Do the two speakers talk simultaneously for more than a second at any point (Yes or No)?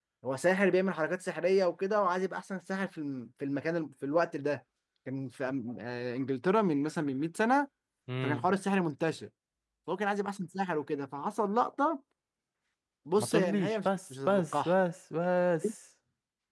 Yes